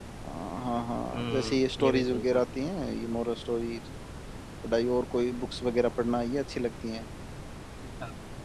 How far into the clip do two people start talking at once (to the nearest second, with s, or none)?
1 s